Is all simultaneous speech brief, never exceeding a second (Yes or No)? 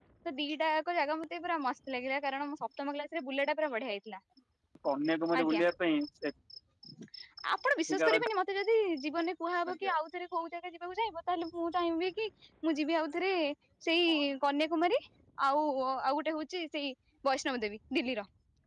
Yes